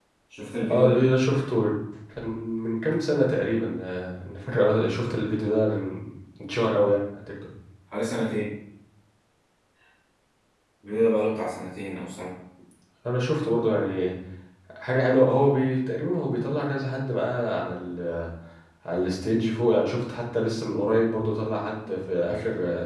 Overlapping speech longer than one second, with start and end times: none

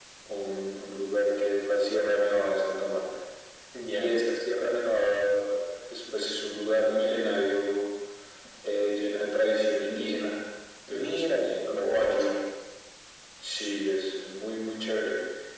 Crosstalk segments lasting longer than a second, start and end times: 10.9-12.3

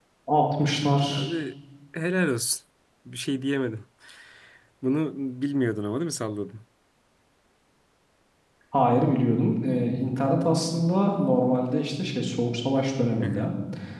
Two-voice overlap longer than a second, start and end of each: none

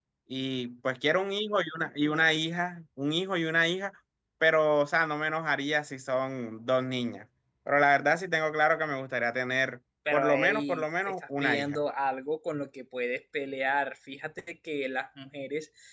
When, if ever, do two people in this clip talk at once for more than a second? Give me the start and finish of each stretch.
10.1-11.8

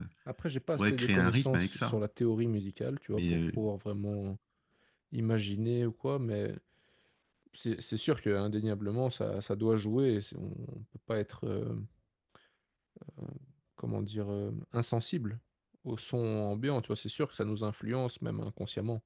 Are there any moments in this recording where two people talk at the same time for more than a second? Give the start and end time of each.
0.7-2.0

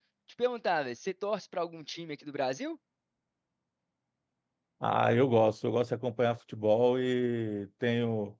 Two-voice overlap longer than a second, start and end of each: none

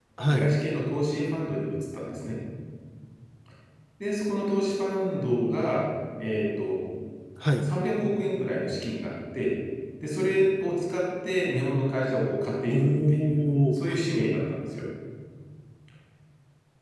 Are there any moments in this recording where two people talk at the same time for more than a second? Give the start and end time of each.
12.7-13.9

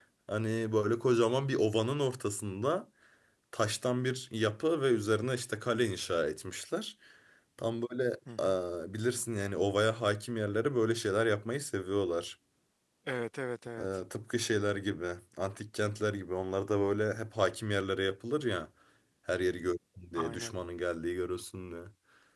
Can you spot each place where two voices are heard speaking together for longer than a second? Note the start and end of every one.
none

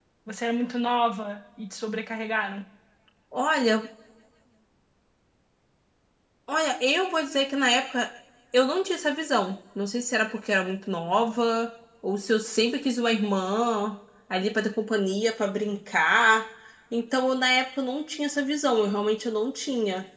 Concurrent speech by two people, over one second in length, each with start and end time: none

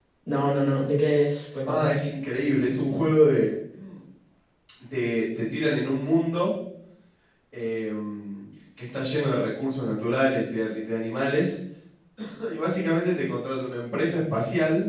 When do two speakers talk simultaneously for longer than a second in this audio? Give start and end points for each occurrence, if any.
none

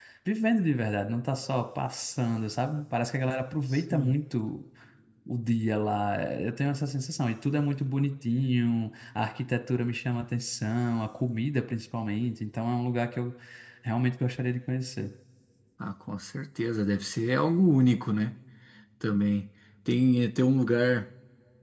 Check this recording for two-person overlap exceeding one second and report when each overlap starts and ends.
none

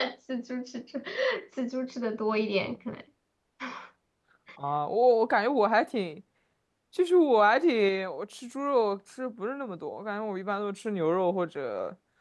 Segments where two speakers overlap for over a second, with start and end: none

